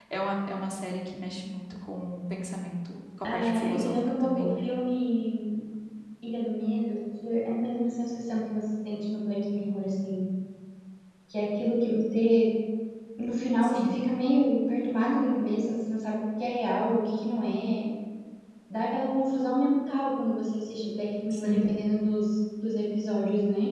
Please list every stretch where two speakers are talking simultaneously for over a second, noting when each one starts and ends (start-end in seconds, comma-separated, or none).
3.2-4.7